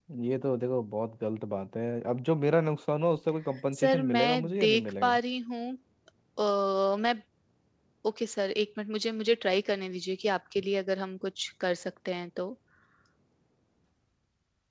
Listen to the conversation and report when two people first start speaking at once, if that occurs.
3.7 s

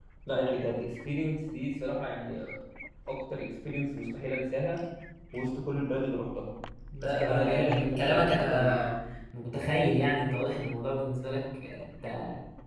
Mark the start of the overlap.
7.0 s

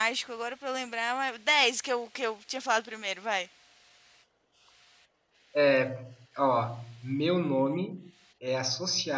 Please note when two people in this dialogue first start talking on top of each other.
none

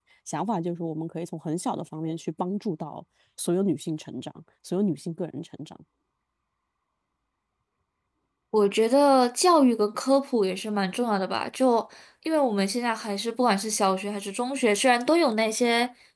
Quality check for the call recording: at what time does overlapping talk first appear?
none

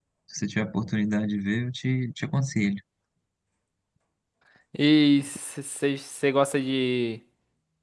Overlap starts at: none

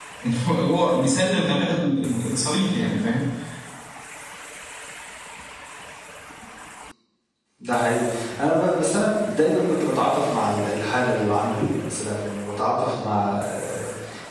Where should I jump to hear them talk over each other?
none

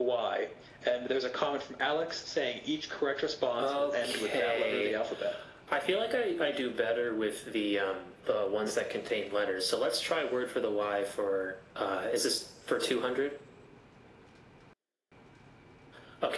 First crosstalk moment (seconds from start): 3.6 s

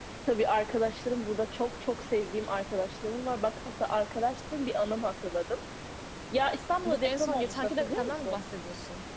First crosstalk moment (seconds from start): 6.8 s

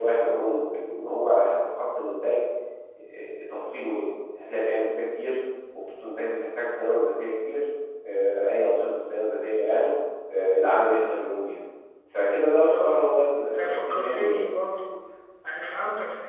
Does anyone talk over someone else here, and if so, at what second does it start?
12.7 s

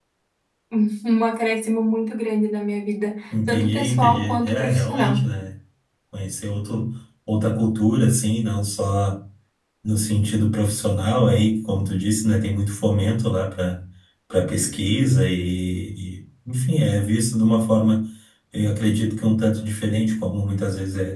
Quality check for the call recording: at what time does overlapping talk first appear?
3.3 s

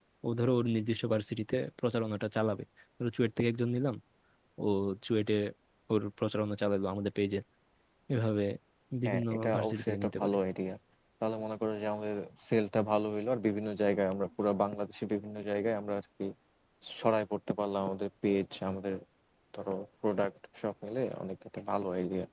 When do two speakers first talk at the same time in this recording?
9.1 s

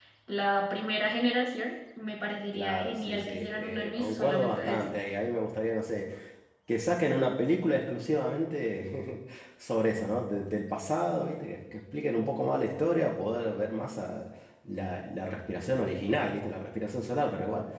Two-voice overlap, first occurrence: 2.5 s

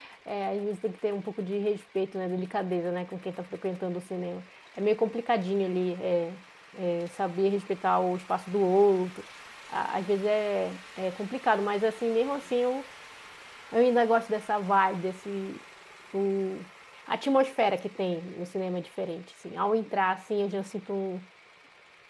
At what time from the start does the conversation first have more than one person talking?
none

